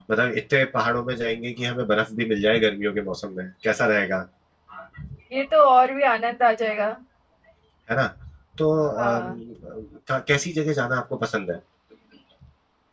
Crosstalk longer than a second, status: none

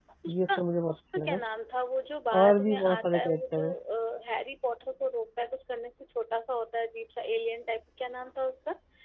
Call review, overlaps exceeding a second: present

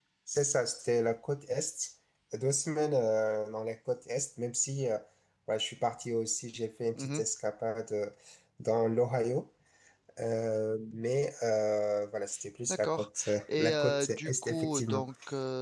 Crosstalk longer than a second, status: present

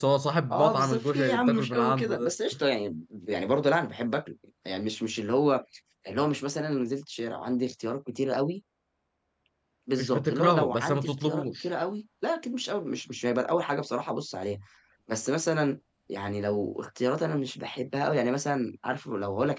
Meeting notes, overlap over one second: present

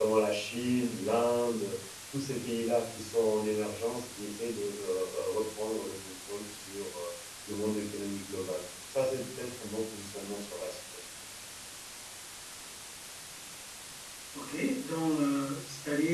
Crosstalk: none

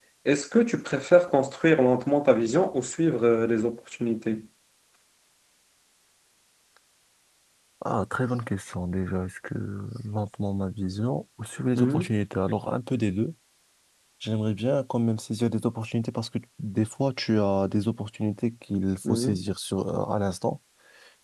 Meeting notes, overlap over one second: none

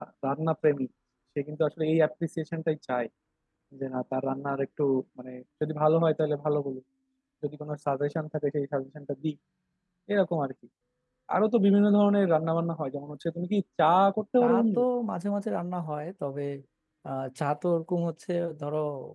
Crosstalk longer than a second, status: none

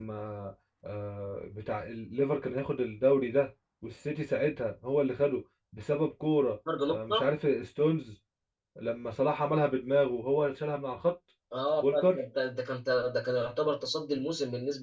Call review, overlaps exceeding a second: none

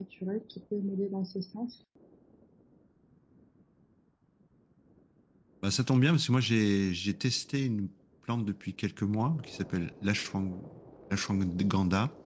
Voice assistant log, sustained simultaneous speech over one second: none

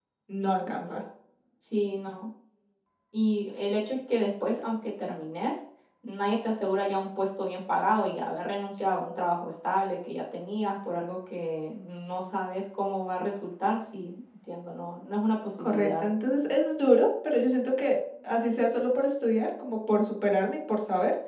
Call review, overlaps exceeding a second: none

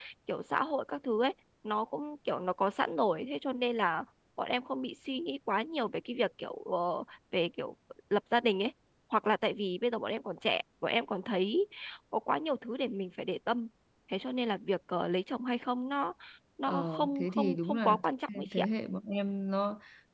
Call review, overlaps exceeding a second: present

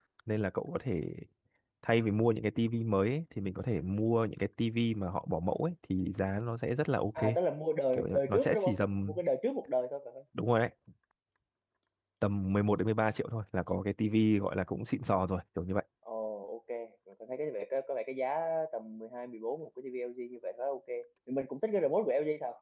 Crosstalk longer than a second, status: present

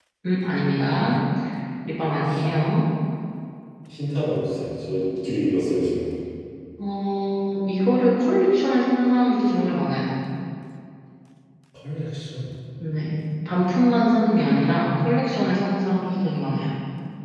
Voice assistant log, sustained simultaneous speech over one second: none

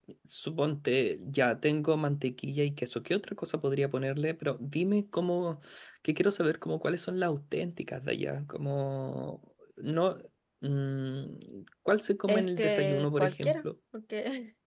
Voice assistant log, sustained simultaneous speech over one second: present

